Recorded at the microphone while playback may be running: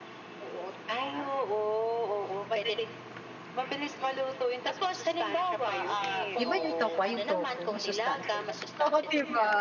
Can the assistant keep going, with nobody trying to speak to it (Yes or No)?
No